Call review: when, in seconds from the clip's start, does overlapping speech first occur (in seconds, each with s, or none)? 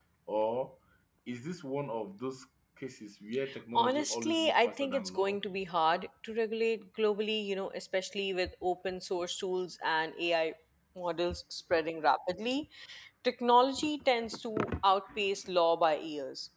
3.8 s